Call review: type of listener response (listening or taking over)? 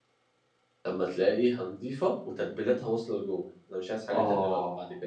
taking over